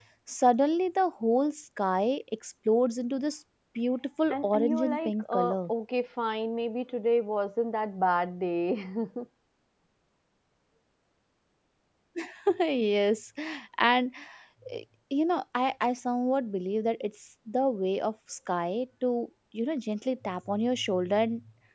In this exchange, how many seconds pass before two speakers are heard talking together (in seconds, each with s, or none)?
4.3 s